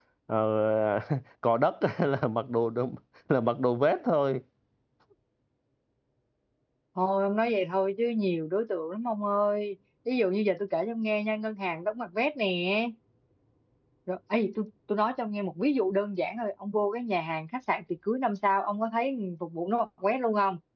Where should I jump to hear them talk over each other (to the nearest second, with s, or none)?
none